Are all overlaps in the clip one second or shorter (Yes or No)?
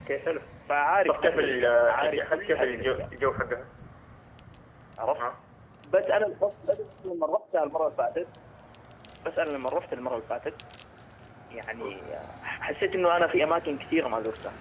No